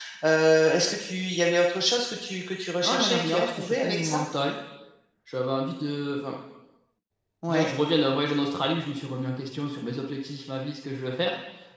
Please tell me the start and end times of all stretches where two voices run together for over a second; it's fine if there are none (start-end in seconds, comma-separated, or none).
2.8-4.2